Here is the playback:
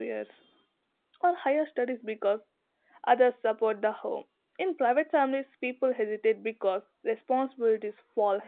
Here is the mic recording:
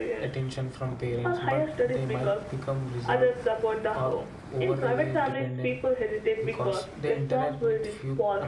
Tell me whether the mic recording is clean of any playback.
No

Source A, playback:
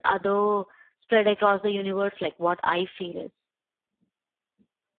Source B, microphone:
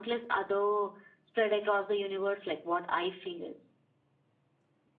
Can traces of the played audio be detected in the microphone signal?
Yes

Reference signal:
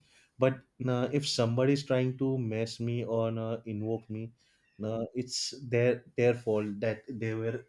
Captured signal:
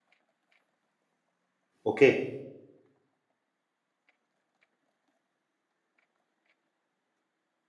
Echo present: No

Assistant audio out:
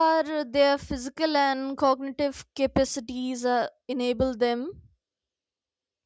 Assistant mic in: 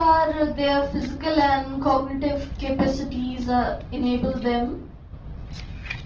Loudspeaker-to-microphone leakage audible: Yes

